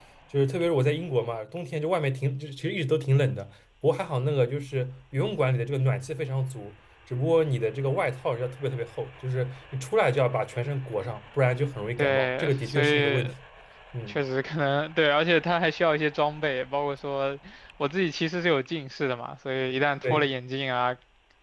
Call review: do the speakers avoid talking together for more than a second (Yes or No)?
No